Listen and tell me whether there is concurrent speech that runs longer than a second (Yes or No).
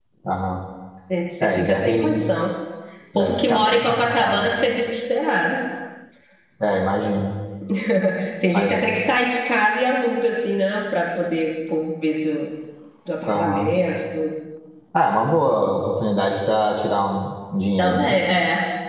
Yes